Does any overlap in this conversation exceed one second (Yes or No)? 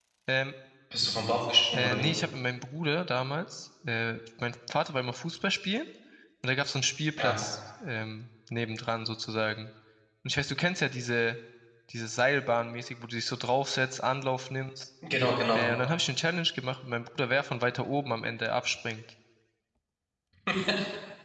No